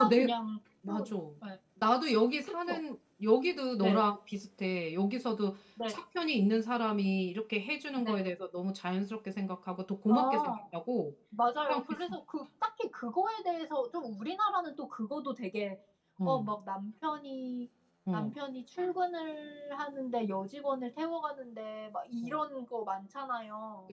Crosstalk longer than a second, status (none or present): none